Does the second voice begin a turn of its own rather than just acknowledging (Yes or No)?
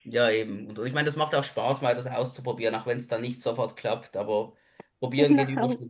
No